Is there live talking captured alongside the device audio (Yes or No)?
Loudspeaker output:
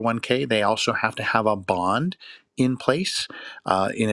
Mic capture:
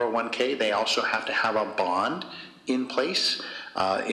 No